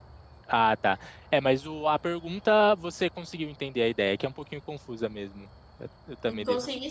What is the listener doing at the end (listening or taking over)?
taking over